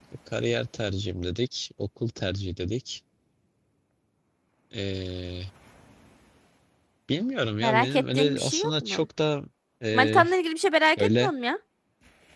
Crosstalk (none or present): present